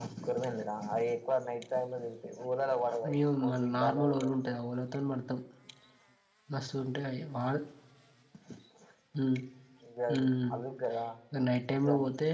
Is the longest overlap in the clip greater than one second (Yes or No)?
Yes